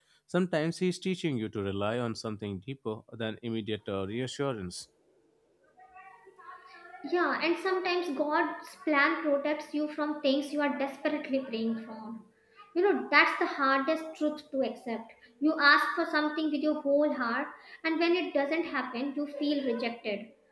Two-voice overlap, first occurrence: none

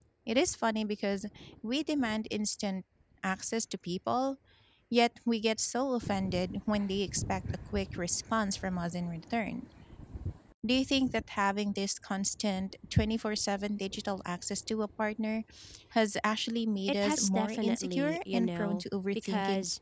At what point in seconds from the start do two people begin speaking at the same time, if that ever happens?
16.9 s

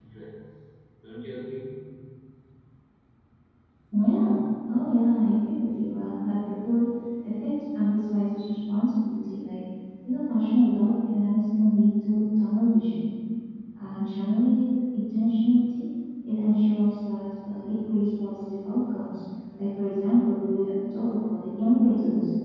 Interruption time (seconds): none

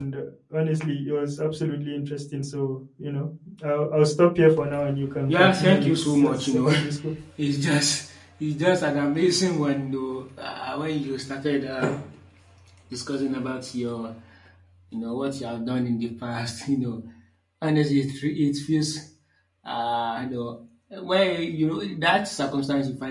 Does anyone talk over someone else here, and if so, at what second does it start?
5.3 s

